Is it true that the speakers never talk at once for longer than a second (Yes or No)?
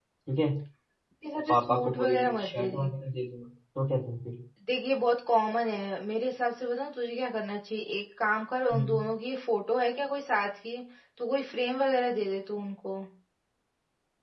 No